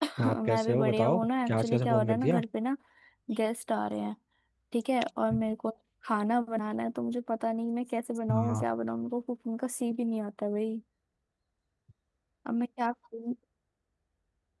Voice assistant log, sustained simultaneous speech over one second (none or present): present